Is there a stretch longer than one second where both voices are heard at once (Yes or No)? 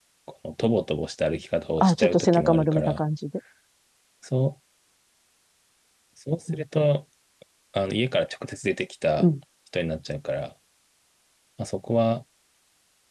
Yes